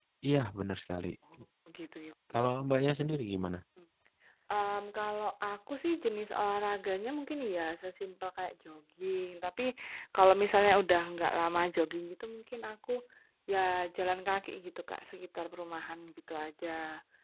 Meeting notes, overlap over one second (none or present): none